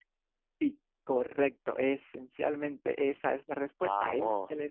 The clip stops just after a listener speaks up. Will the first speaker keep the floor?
Yes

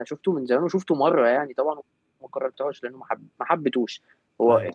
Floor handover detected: No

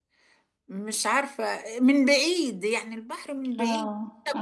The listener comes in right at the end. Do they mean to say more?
Yes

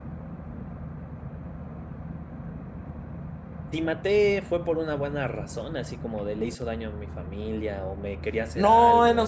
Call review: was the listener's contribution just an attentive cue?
No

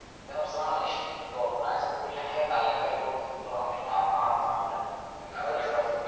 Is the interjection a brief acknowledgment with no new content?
No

